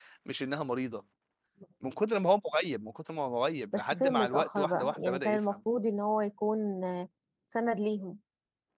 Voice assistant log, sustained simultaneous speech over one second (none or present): present